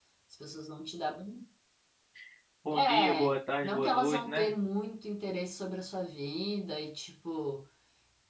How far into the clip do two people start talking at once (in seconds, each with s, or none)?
2.7 s